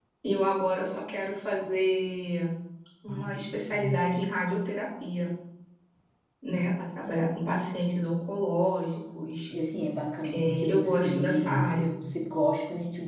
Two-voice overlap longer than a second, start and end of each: 10.3-11.7

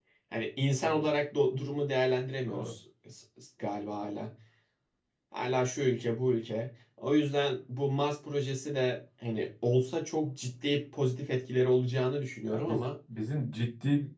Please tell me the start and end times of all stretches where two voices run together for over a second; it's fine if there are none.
none

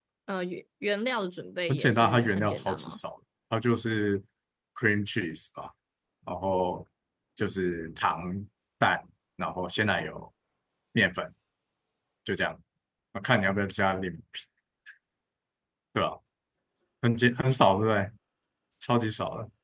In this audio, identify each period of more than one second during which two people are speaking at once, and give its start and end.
1.7-3.0

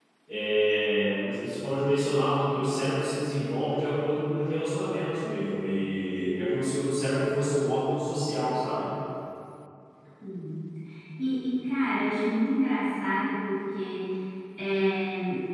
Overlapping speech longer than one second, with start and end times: none

